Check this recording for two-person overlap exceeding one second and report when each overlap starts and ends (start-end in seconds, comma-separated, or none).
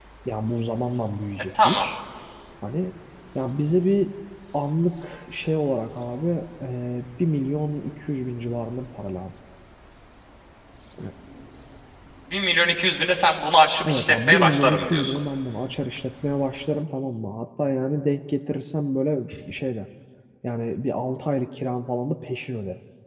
13.8-15.2